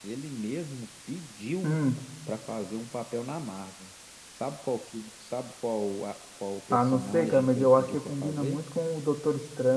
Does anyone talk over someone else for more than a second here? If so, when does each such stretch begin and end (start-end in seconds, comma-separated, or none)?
6.7-8.6